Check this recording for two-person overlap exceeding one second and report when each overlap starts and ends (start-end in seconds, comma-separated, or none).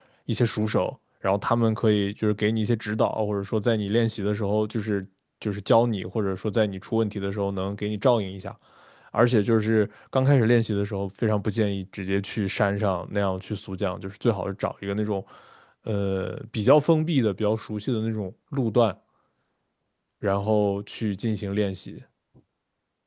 none